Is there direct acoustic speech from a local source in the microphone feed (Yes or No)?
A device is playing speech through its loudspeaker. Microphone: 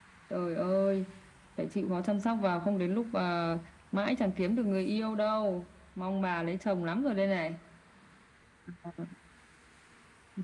No